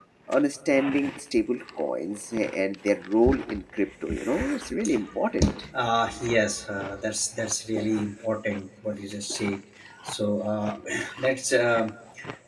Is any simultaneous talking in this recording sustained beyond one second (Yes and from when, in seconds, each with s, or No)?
No